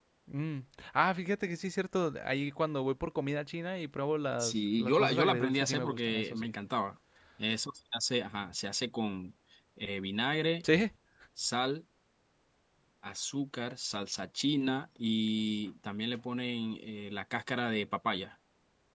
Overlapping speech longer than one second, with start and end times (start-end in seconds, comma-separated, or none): 4.4-6.5